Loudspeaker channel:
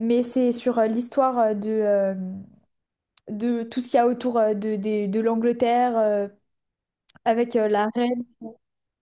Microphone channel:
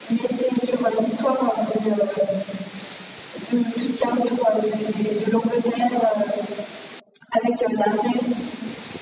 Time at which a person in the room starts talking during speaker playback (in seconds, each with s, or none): none